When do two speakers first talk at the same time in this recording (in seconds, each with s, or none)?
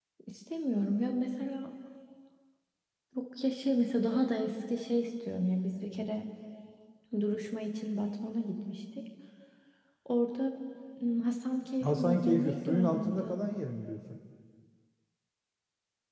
11.8 s